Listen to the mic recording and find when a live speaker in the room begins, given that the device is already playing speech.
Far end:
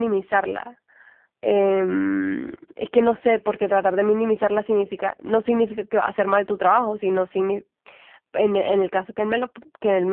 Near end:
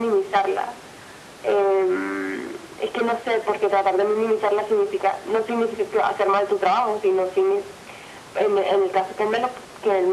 none

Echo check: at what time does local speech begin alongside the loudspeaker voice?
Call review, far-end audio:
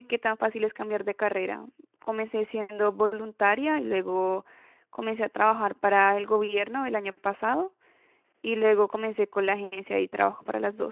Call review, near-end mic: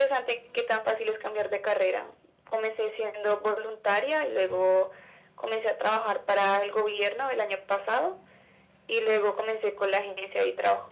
none

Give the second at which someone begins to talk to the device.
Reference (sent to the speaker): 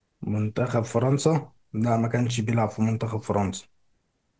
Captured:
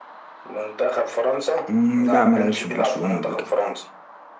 1.7 s

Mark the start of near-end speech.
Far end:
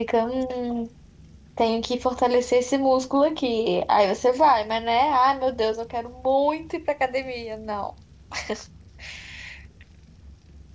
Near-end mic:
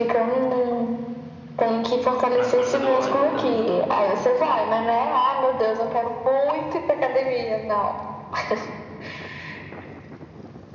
2.4 s

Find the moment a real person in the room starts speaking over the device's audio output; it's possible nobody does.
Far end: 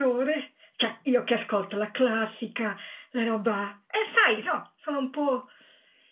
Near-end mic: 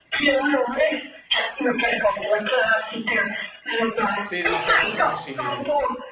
4.2 s

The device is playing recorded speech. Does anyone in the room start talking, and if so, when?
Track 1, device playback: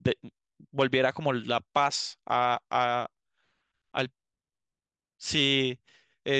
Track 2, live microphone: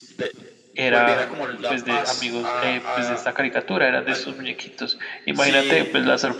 0.7 s

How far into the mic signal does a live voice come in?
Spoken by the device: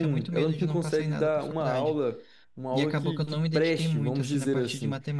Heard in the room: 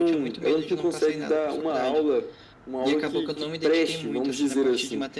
none

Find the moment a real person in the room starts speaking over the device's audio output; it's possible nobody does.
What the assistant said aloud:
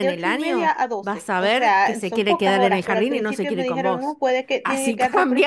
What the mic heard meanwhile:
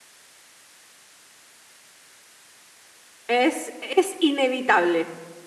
3.3 s

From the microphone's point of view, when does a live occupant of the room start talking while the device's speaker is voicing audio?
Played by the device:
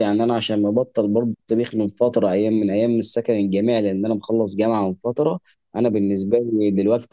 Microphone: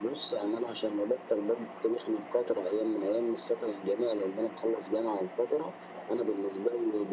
none

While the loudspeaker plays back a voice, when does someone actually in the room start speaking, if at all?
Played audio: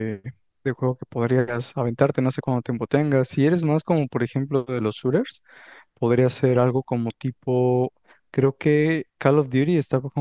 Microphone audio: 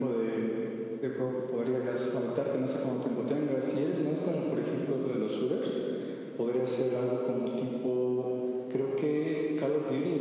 none

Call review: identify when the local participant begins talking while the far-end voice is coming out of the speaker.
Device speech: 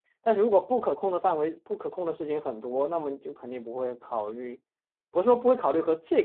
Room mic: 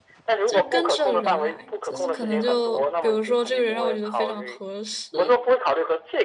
0.5 s

